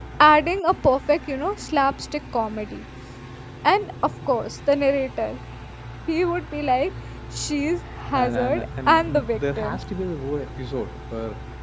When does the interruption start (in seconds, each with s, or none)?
8.1 s